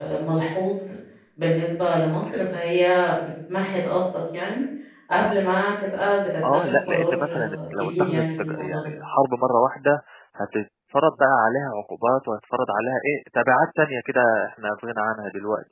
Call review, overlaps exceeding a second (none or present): present